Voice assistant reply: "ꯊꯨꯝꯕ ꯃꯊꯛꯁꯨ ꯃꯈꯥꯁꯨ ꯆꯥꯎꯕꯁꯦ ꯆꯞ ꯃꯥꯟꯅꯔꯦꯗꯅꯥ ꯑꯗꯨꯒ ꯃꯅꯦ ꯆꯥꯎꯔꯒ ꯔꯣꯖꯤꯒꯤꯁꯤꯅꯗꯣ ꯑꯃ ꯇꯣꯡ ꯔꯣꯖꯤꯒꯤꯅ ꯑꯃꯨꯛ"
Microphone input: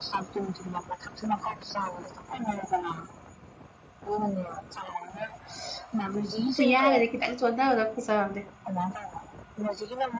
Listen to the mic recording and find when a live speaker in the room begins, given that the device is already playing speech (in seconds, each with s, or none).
6.5 s